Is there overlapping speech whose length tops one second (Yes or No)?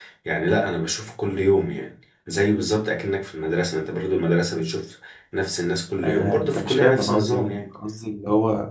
Yes